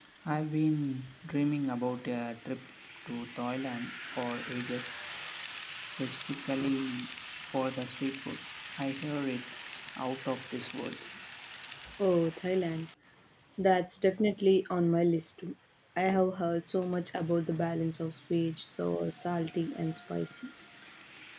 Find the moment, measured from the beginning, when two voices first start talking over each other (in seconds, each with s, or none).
none